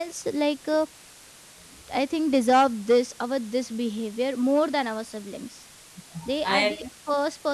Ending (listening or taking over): listening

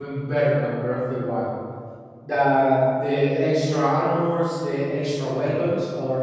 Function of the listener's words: listening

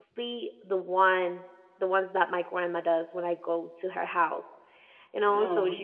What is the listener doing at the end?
listening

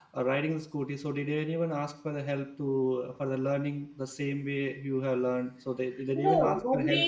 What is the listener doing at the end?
taking over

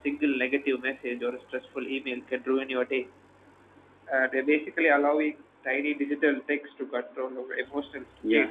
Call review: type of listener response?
taking over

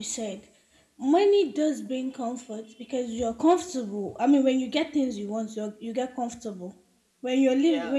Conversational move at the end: listening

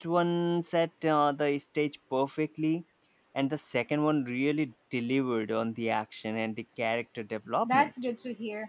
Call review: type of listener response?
taking over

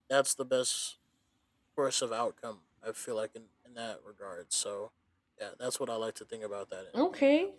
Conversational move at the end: taking over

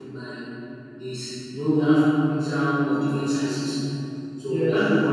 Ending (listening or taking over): listening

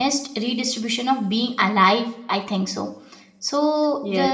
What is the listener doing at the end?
listening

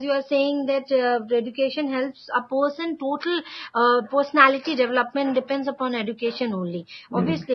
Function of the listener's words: listening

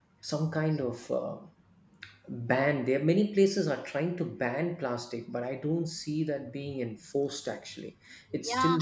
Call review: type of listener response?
taking over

